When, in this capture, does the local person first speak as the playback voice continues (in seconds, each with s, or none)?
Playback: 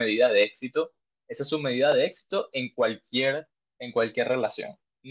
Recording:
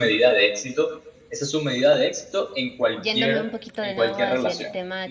3.0 s